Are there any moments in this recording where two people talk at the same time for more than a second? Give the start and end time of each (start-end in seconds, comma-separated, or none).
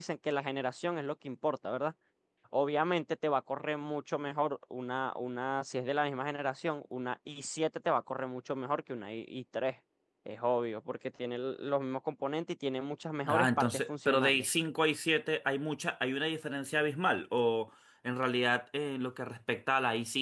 13.2-14.5